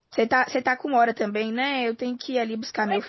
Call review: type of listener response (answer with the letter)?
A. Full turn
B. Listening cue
A